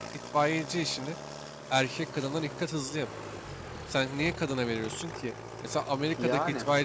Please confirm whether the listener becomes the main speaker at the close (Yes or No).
No